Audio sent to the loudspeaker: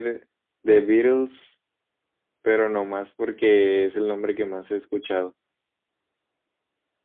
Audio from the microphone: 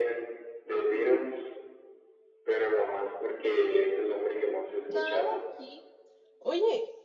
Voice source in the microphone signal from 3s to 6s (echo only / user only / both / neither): both